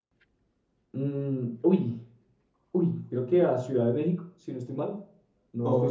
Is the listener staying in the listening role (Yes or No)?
No